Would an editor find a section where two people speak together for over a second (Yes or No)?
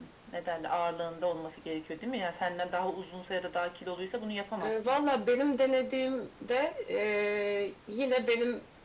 No